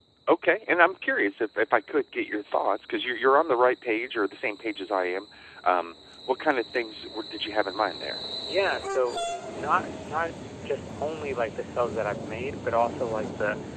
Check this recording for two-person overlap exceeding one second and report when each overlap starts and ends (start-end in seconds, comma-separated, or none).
none